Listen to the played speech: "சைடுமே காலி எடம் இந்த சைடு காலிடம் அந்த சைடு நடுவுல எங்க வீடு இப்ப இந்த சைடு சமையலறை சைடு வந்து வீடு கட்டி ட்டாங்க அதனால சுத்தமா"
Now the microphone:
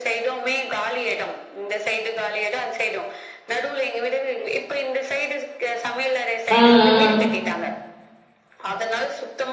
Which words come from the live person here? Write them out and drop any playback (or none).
ம் ம்